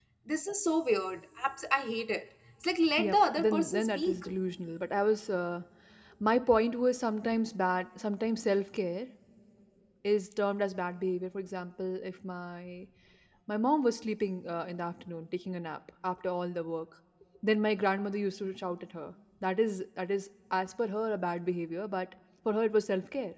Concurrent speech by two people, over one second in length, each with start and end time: 3.0-4.2

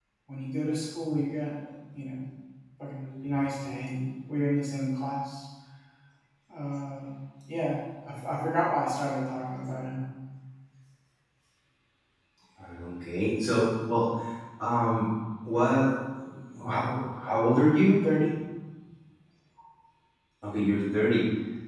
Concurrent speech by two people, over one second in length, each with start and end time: none

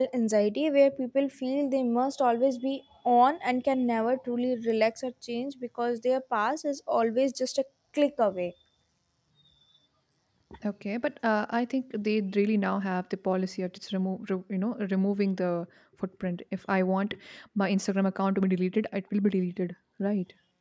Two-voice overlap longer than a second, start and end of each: none

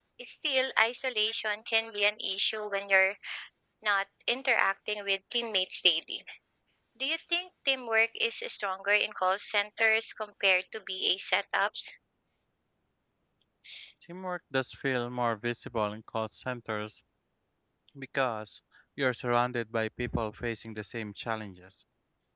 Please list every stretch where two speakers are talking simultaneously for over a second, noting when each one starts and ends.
none

